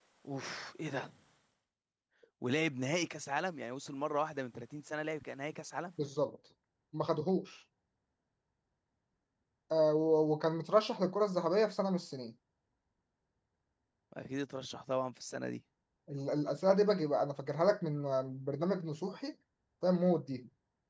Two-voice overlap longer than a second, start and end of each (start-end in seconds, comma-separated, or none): none